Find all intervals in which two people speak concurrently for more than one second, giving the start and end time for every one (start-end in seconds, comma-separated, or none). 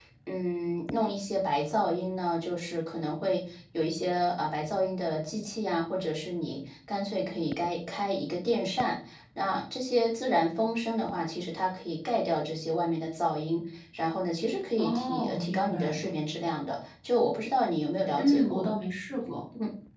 14.8-16.0